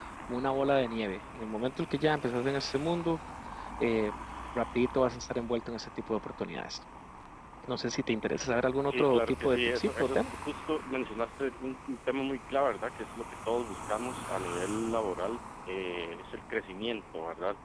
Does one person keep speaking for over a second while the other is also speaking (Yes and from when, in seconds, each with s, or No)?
Yes, from 8.9 s